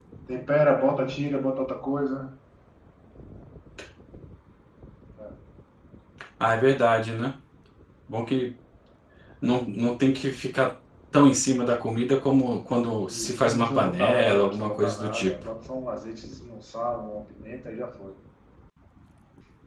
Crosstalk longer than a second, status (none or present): present